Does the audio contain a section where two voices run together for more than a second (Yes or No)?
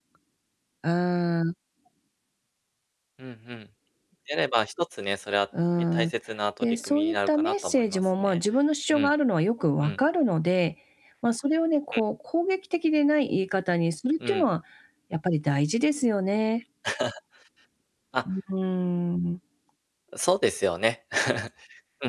Yes